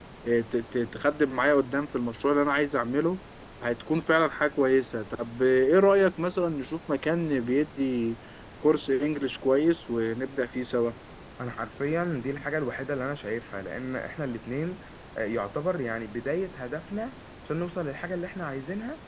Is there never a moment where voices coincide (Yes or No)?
Yes